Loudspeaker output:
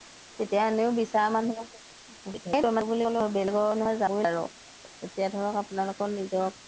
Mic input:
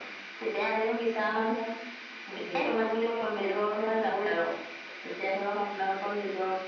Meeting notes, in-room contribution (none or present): none